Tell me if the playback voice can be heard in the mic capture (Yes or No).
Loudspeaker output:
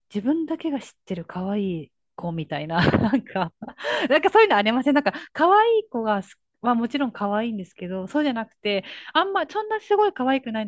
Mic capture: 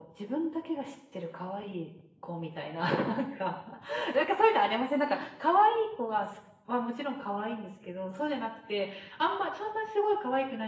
Yes